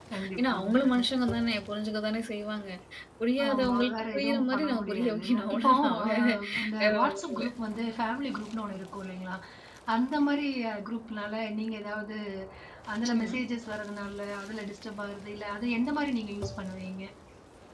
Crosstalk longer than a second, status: present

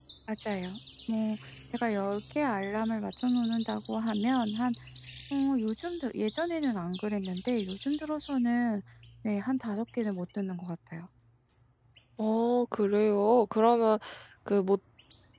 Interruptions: none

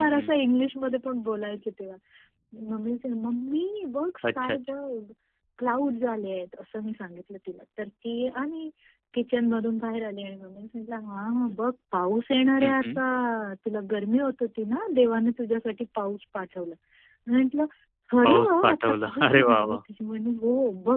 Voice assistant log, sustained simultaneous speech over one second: present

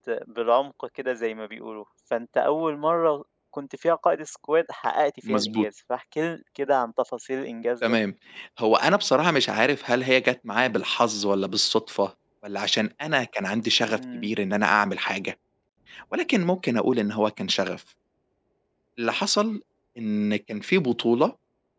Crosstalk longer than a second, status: none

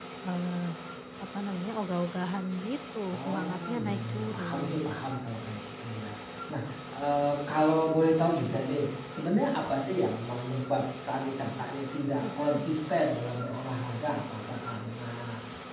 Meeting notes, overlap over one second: present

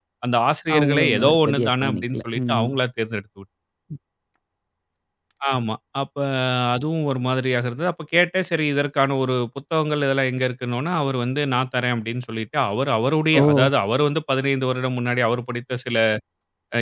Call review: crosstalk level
present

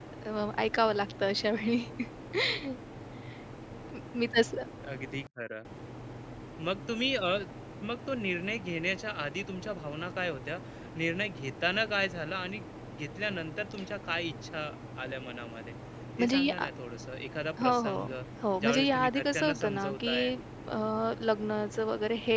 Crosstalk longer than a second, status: present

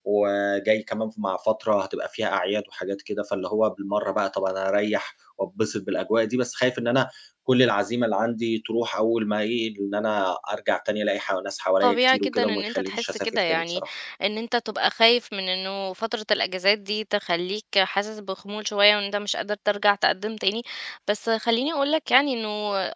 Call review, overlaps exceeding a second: present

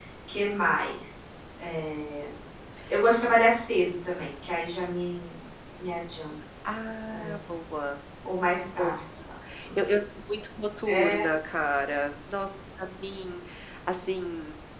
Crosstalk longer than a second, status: none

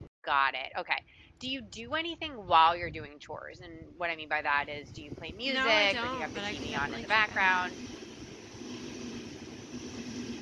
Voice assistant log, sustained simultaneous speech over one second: present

